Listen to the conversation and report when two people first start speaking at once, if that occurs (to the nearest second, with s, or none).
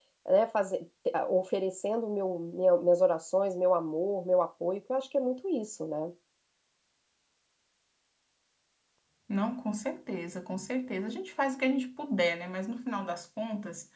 none